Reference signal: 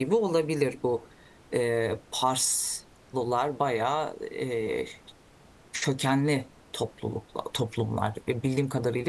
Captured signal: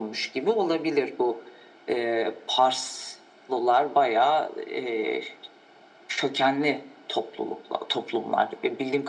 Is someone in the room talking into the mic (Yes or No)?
No